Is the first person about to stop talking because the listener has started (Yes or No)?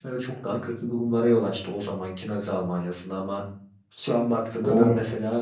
No